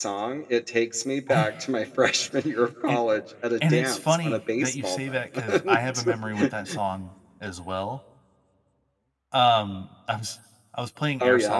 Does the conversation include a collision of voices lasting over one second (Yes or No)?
Yes